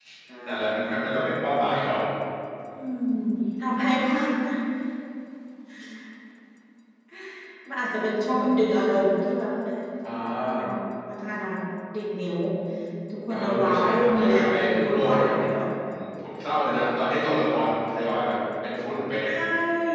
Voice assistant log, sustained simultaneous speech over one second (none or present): present